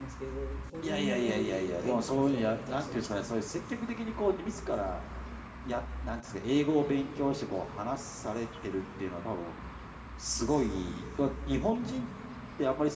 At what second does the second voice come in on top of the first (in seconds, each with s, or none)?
0.8 s